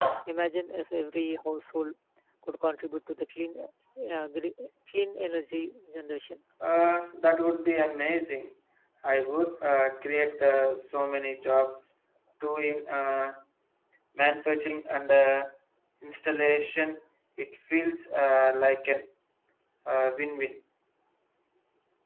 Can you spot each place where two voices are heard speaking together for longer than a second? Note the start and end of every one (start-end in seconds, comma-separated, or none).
none